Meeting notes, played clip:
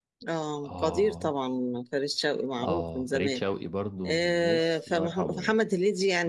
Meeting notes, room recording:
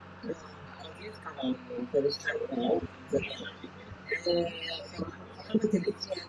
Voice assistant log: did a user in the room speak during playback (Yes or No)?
No